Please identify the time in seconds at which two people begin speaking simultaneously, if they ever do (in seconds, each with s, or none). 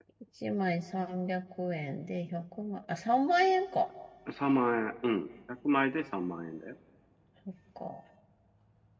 none